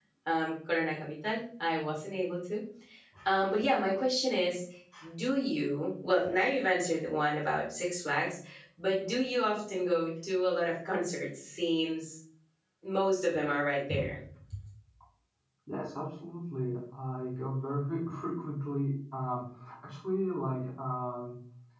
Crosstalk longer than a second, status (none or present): none